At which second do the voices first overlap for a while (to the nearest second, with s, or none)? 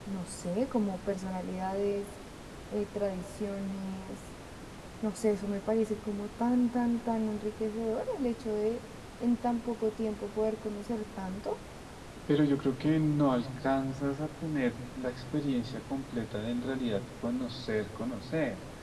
none